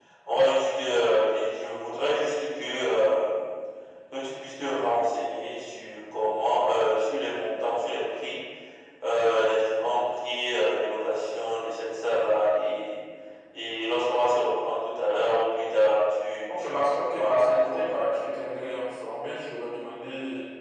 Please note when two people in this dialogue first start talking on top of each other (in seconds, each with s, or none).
16.5 s